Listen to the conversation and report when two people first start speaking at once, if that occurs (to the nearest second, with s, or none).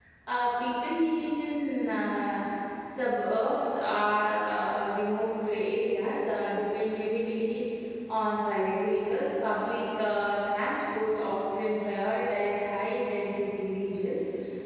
none